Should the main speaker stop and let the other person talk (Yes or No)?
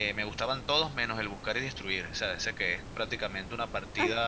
Yes